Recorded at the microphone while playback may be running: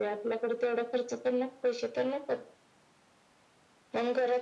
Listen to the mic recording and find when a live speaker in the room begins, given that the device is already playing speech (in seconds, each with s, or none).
none